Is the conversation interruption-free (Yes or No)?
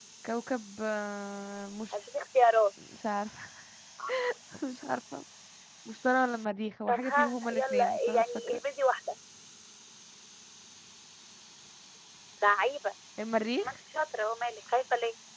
No